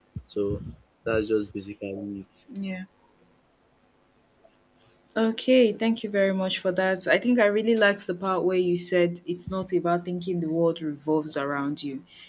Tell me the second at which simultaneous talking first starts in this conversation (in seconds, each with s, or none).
none